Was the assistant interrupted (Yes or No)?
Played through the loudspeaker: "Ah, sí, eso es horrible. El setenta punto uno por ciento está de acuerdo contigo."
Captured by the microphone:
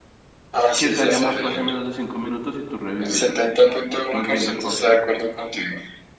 Yes